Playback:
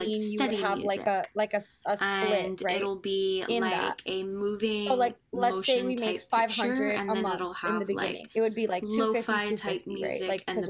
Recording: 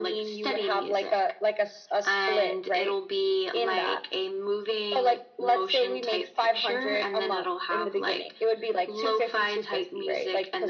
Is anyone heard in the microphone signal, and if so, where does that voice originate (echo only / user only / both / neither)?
echo only